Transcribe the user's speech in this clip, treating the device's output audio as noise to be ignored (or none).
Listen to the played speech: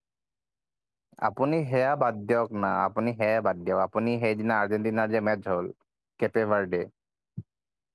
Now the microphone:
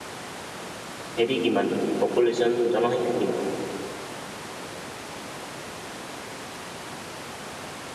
হেৰি কিমান পপুলেশ্যন জনসংখ্যা কিমান